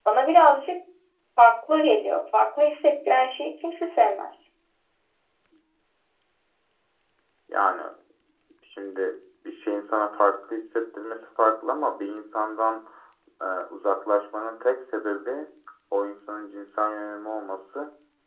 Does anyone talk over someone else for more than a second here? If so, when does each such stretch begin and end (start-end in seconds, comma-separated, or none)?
none